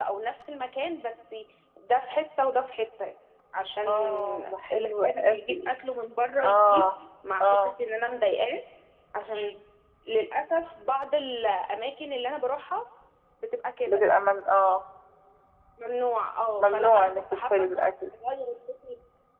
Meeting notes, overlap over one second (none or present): present